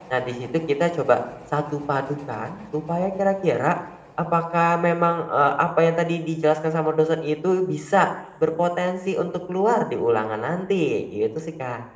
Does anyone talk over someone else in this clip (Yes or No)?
No